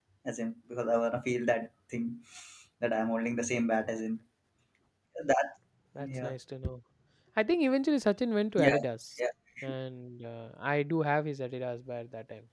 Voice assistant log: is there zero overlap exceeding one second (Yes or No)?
Yes